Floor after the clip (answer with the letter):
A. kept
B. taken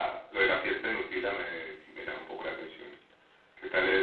A